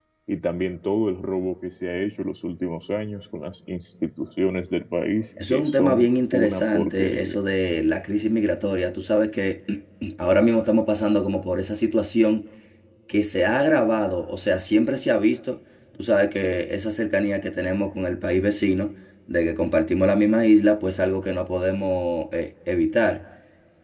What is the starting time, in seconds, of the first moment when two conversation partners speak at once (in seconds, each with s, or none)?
5.4 s